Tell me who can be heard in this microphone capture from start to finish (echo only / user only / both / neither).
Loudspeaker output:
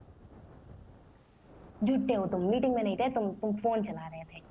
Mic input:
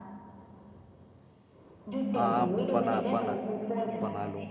both